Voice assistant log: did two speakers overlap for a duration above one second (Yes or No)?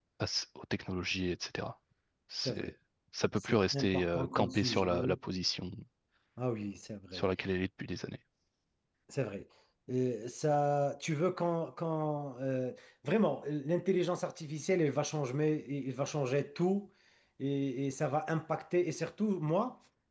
Yes